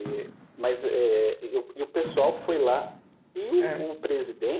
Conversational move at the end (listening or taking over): listening